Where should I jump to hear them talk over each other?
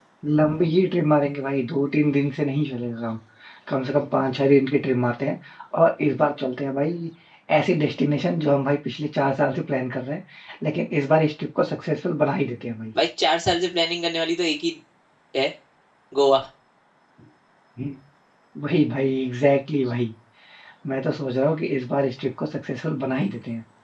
none

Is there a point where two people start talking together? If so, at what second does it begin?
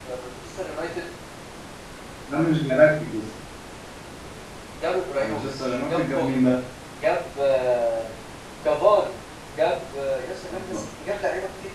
5.2 s

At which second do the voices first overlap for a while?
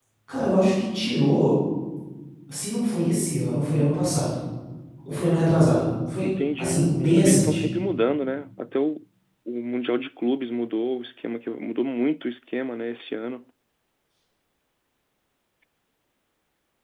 6.2 s

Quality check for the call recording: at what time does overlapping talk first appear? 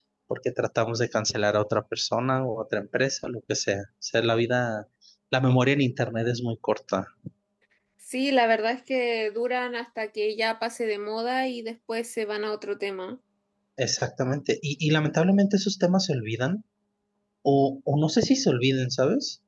none

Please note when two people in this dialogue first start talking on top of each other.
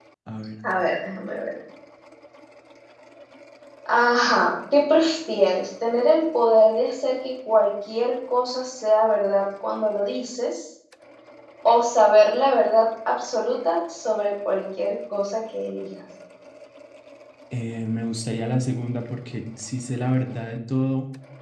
none

